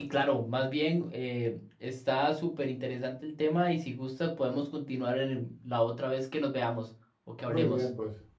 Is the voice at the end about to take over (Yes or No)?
Yes